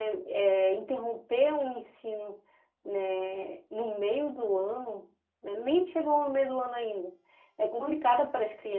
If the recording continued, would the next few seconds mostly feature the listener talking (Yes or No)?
No